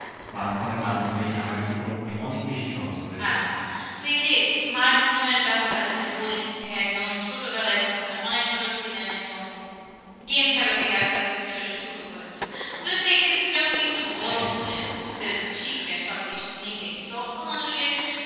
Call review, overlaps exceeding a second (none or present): none